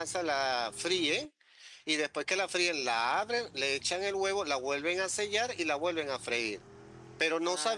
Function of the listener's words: listening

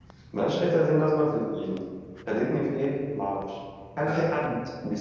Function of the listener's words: listening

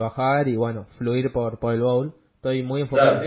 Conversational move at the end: listening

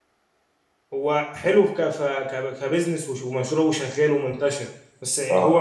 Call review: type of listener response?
listening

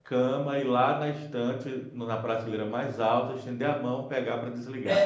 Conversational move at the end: taking over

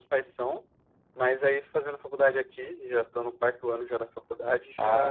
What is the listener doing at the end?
taking over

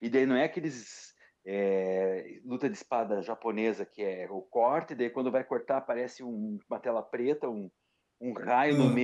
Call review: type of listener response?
listening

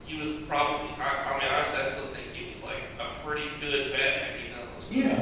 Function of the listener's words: taking over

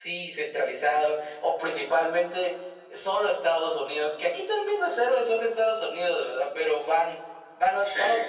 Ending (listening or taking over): listening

